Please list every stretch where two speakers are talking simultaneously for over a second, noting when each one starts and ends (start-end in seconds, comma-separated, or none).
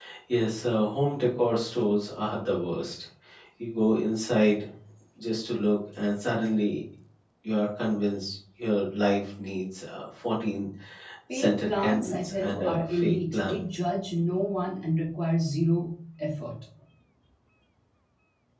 11.3-13.6